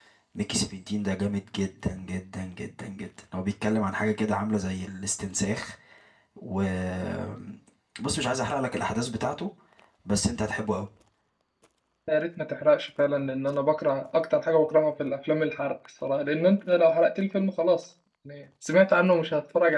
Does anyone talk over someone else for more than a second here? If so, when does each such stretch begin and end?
none

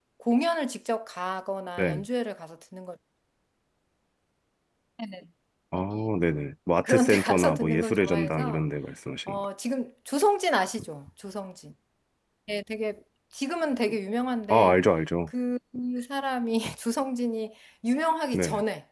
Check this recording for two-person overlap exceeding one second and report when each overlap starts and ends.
6.8-8.6

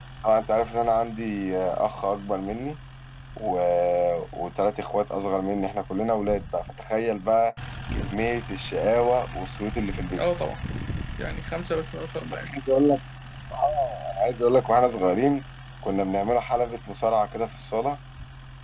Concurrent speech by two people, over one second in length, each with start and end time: none

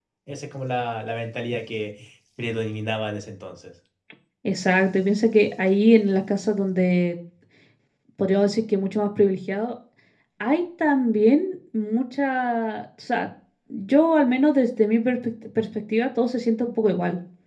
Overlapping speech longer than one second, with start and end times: none

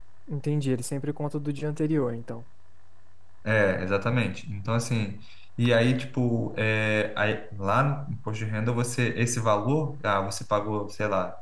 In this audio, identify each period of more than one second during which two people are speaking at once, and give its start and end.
none

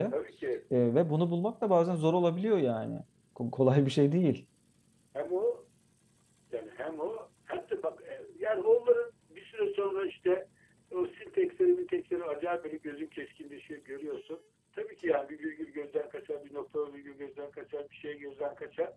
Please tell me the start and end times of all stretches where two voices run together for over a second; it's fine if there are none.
none

